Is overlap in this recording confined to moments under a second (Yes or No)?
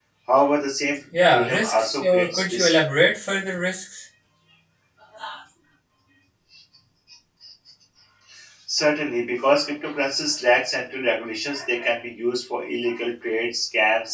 No